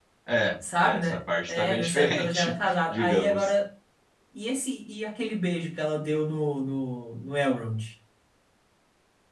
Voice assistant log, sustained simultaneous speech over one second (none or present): present